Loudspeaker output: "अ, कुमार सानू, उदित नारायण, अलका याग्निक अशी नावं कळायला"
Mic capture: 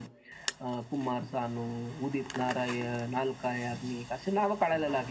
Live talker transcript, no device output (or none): none